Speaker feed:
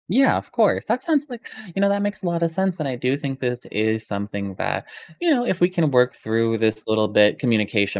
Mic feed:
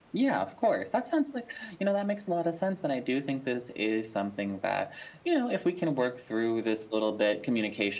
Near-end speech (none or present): none